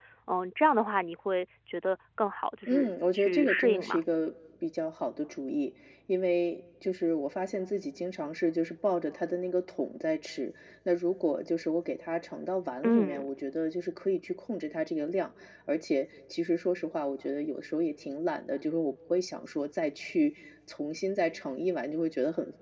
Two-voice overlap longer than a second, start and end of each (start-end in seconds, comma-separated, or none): 2.7-4.0